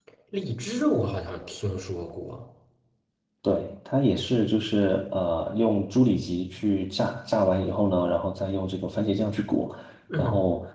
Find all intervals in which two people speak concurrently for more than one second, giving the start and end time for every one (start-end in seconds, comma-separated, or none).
none